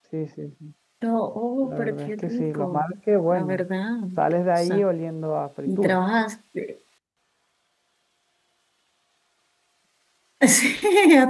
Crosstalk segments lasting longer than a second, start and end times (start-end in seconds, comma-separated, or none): 1.6-2.9